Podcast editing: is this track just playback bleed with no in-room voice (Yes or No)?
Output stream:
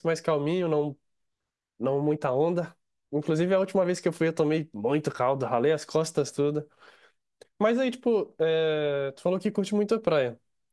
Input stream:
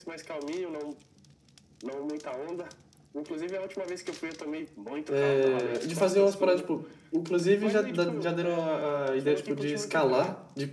No